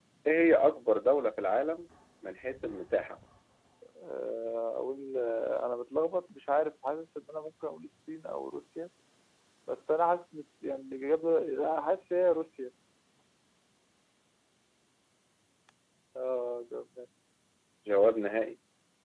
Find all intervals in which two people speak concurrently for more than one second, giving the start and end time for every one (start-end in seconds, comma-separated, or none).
none